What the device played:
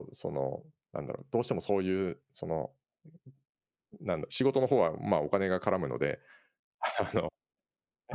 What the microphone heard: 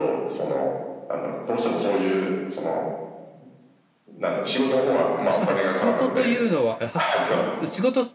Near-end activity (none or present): present